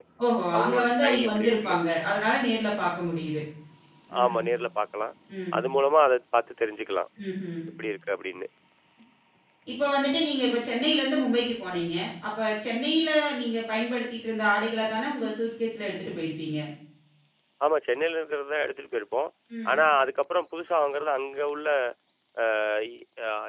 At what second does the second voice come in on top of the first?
0.6 s

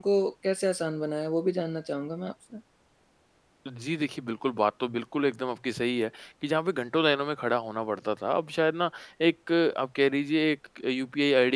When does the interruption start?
none

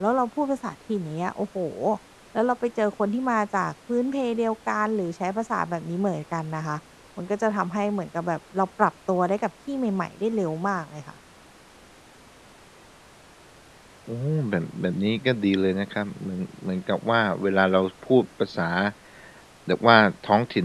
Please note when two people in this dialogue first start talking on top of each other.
none

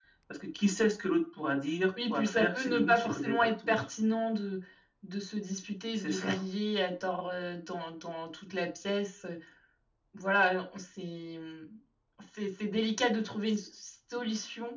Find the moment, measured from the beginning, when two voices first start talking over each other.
2.1 s

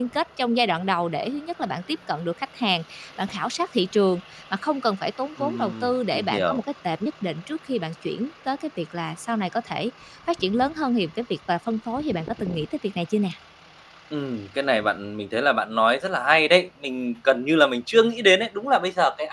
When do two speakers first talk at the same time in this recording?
5.4 s

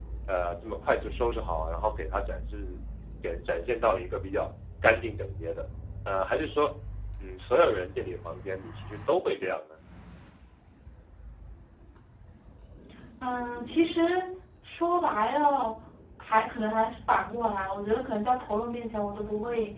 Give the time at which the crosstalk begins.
none

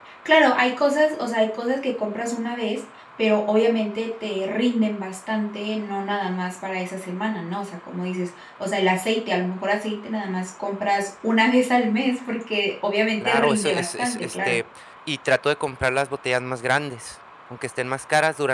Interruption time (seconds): 13.2 s

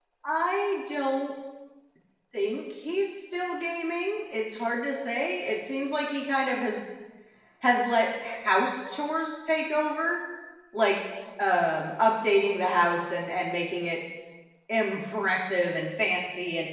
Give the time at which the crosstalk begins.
none

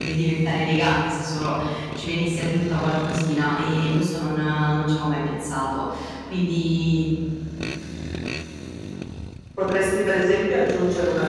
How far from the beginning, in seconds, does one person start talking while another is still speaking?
none

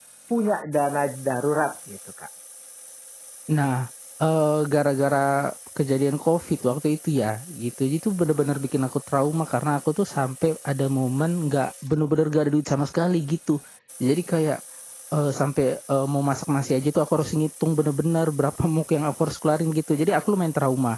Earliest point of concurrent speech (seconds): none

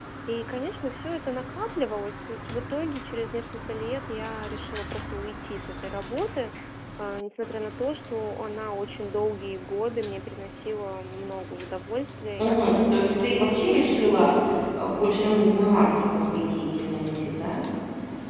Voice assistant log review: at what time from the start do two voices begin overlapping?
12.4 s

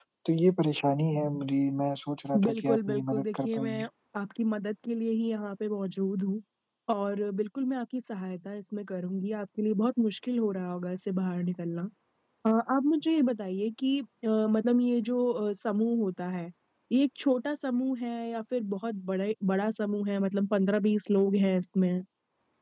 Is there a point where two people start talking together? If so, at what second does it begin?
2.3 s

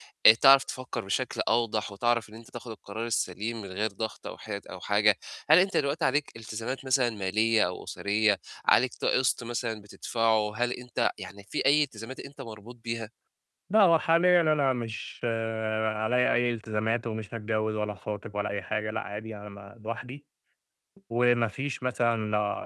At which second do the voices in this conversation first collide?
none

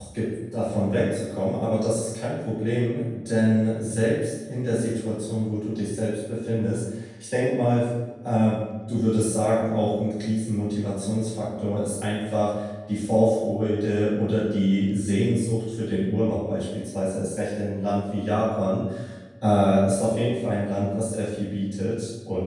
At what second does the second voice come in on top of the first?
none

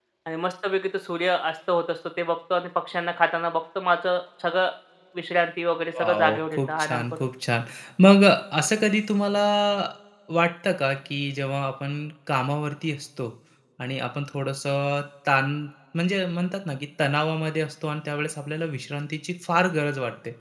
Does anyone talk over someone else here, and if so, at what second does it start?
6.0 s

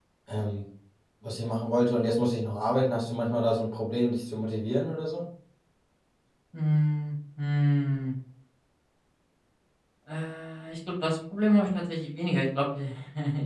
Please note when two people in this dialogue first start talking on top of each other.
none

